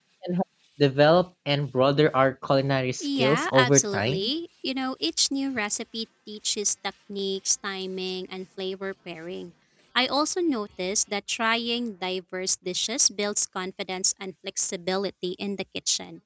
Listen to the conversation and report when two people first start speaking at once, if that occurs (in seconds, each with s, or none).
3.0 s